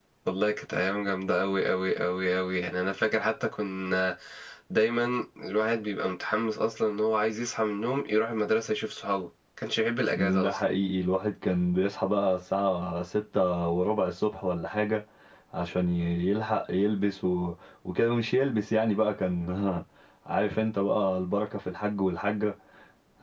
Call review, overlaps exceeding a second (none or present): none